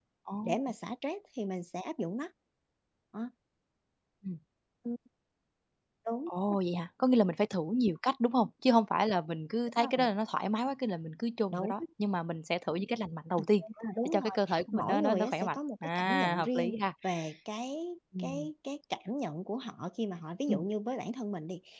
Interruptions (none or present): present